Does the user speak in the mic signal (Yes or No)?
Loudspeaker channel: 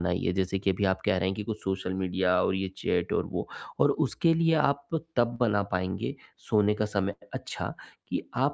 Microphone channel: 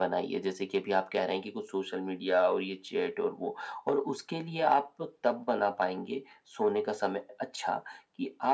No